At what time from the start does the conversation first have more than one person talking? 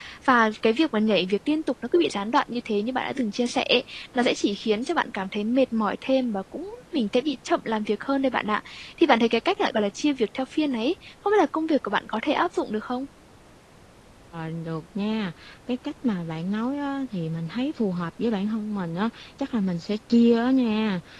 none

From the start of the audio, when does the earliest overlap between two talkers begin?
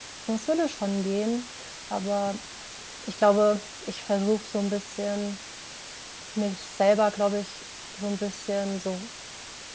none

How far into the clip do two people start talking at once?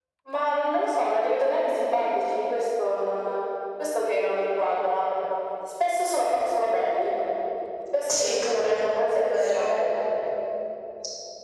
8 s

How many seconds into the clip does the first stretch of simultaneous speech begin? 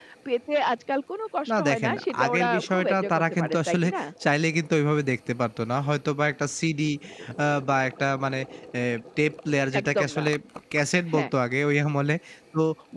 2 s

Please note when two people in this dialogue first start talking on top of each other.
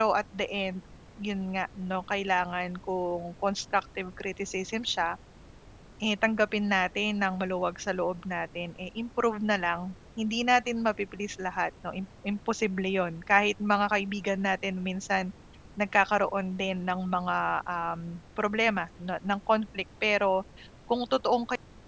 none

